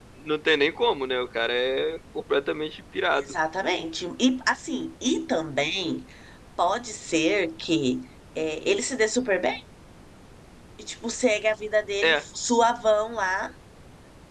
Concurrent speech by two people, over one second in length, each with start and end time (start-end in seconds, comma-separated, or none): none